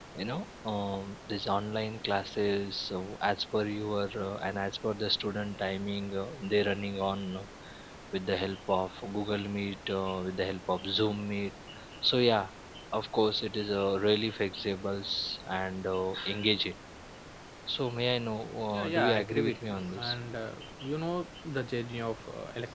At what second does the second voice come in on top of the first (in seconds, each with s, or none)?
18.7 s